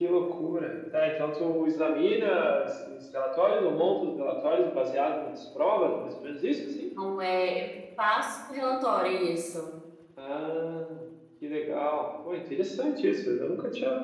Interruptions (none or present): none